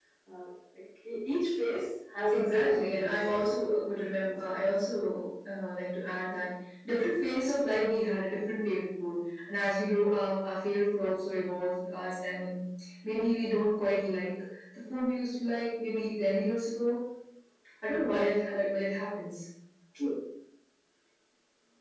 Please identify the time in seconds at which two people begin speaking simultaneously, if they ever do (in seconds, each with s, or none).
2.3 s